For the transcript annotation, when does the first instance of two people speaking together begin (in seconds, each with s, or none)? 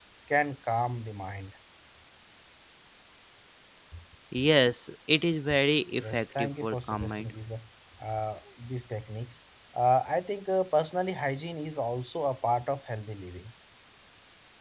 6.0 s